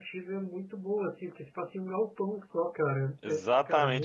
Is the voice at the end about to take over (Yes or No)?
Yes